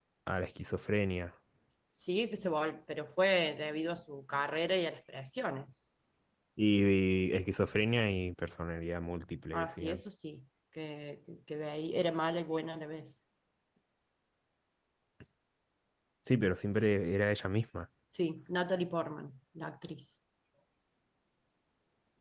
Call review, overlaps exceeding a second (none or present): none